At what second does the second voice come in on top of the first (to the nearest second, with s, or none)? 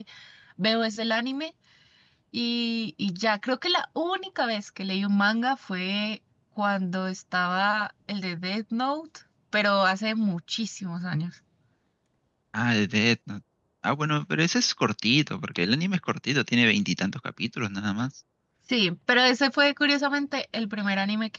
none